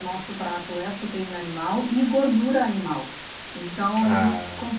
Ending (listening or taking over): listening